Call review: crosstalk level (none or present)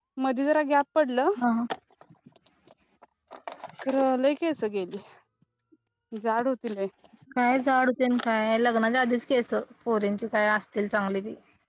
none